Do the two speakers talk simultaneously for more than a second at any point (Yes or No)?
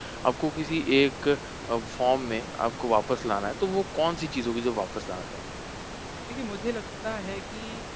No